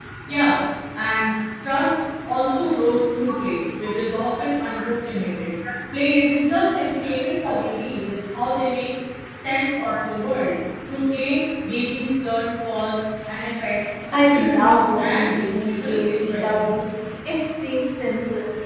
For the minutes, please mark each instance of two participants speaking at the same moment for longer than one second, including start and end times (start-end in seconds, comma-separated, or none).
14.1-16.7